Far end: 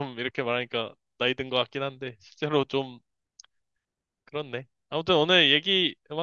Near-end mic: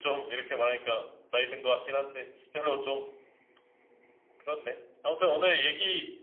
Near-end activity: none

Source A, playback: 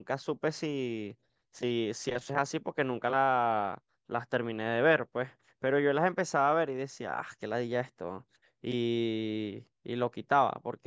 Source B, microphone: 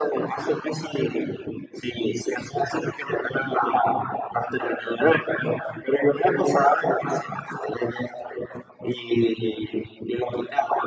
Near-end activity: none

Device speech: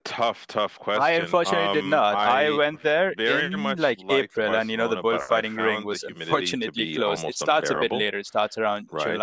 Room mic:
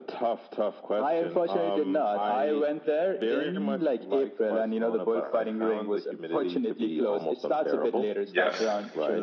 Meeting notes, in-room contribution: present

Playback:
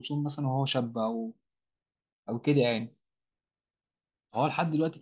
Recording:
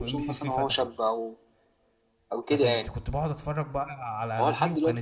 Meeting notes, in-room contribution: present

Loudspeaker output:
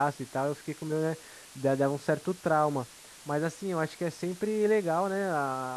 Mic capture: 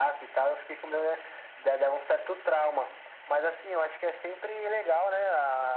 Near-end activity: none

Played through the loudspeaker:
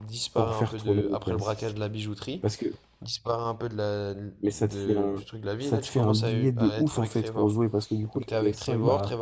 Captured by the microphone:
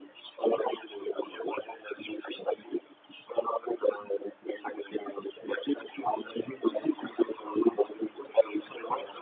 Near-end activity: none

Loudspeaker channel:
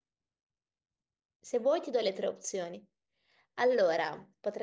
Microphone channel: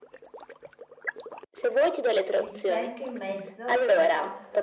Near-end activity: present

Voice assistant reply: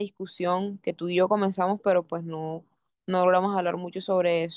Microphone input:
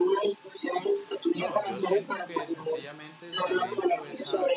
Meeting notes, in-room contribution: present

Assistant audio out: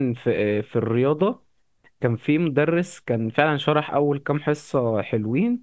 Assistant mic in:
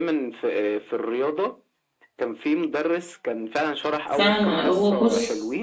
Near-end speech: present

